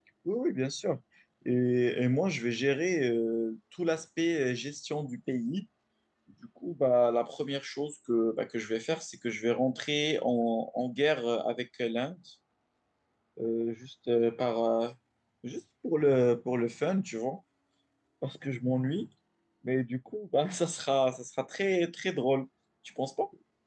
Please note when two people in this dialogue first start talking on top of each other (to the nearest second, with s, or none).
none